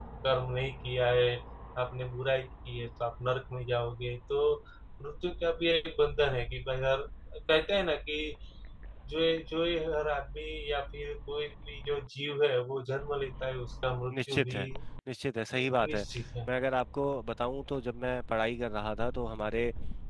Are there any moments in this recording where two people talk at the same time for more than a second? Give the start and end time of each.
none

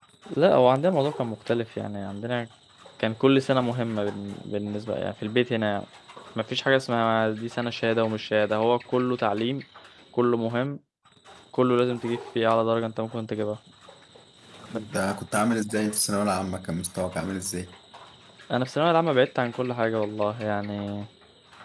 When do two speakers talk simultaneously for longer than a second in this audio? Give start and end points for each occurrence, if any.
none

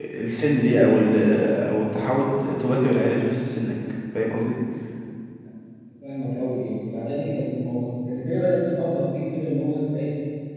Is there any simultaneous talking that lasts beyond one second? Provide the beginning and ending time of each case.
none

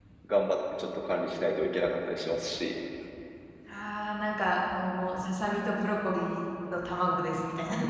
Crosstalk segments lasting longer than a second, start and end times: none

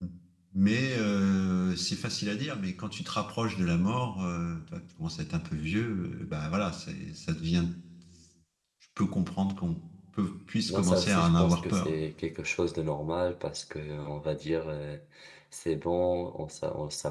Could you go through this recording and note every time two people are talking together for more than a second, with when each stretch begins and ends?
10.7-11.9

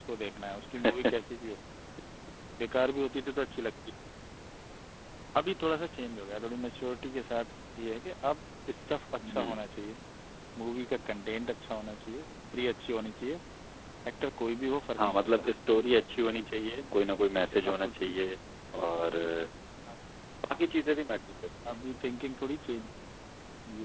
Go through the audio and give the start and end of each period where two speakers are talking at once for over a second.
none

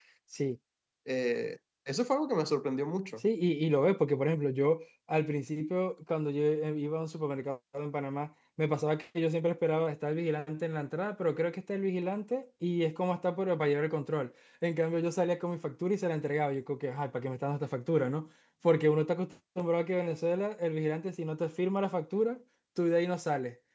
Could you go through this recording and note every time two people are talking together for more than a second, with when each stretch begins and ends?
none

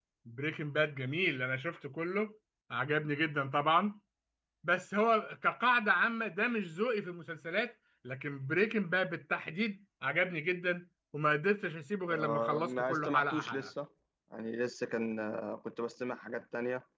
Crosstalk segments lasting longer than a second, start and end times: 12.1-13.7

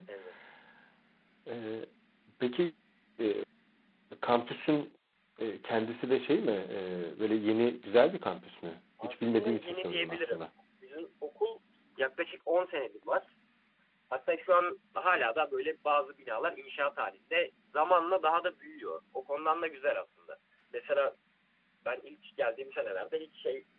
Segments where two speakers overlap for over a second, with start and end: 9.0-10.5

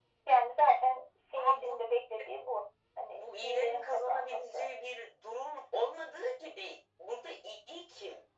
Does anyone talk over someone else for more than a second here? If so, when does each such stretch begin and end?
3.1-4.7

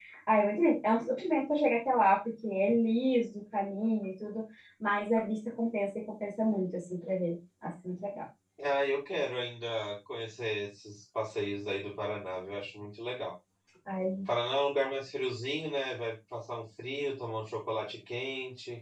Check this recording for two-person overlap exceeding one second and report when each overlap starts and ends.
none

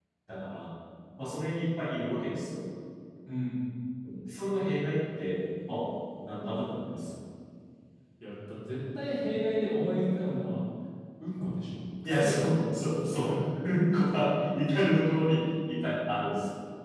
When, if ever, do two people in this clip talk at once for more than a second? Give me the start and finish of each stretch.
none

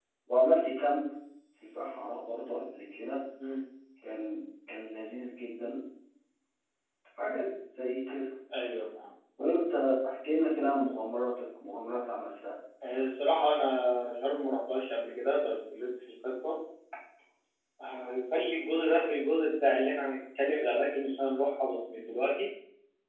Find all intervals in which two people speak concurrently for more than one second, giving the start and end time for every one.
none

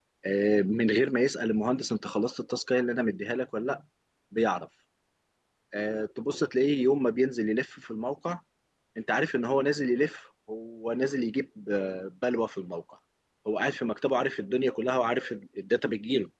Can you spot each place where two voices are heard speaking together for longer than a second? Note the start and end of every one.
none

